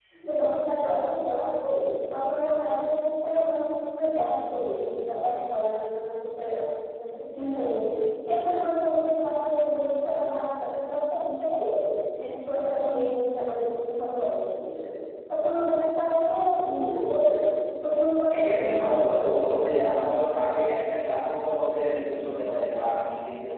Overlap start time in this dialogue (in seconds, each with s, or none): 18.3 s